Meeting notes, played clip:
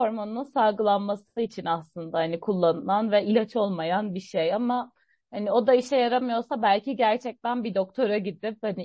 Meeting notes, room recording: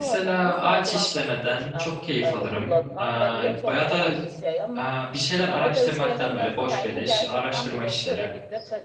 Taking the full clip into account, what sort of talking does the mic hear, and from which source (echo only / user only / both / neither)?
both